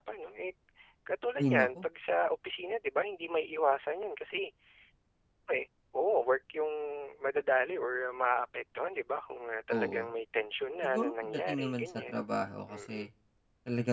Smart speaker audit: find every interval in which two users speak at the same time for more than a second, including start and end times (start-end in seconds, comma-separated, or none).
10.8-12.2